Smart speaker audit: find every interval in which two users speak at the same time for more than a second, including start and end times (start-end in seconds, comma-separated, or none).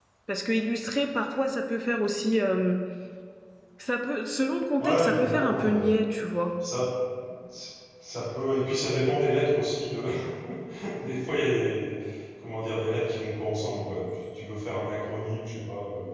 4.8-6.0